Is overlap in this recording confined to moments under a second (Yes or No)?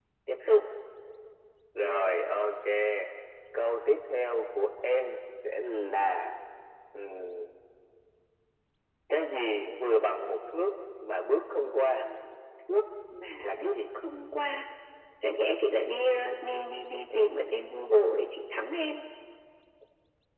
Yes